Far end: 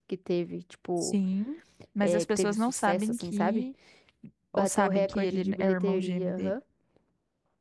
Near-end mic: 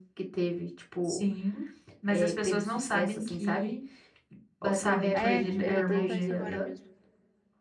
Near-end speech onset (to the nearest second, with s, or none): 5 s